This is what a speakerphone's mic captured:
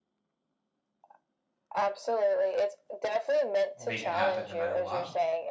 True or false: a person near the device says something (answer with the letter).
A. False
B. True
B